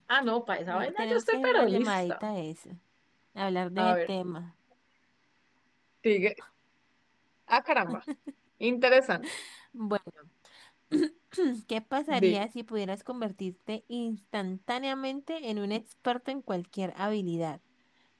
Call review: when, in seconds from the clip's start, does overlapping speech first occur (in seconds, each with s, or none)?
0.7 s